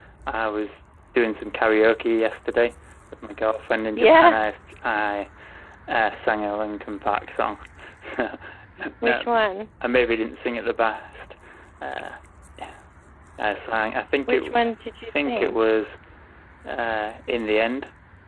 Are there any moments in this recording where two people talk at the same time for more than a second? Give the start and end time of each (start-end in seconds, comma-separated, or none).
none